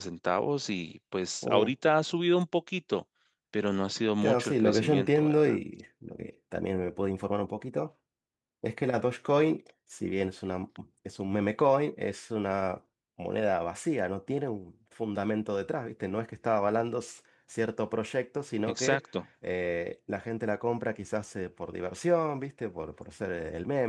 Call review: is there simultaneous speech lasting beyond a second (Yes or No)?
Yes